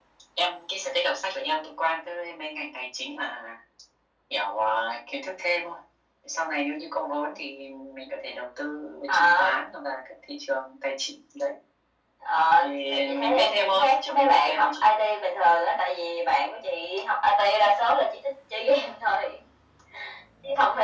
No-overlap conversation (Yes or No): No